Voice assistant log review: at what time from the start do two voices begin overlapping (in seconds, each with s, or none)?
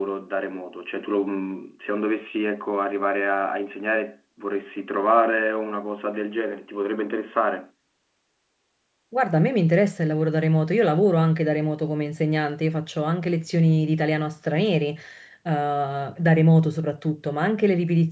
none